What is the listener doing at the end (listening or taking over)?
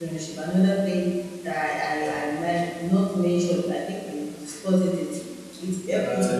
taking over